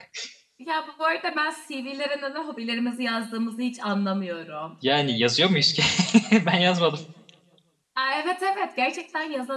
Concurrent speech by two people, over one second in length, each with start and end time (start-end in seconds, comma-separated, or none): none